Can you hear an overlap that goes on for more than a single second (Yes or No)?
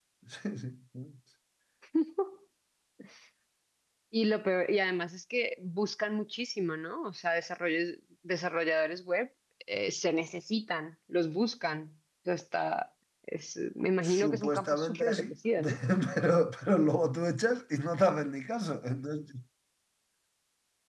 Yes